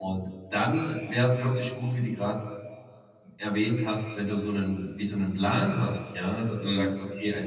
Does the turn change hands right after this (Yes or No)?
No